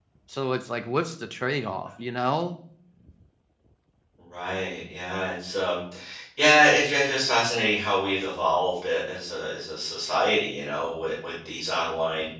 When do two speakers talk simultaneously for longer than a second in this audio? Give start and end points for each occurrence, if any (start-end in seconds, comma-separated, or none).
none